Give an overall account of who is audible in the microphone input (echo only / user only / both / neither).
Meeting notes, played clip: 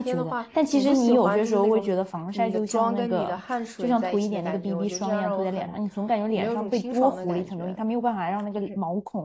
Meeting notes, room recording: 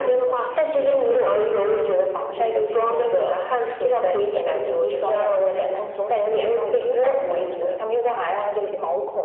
echo only